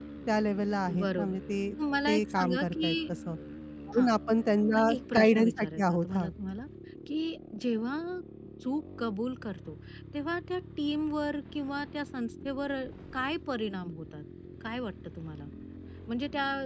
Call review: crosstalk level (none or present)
present